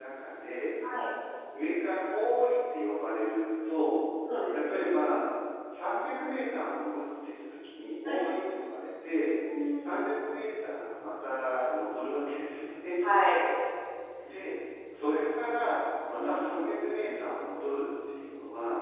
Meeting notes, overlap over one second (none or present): none